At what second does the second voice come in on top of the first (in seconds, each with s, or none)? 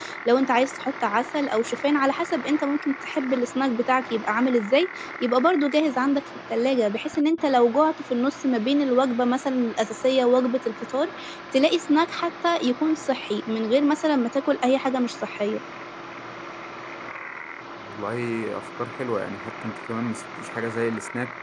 none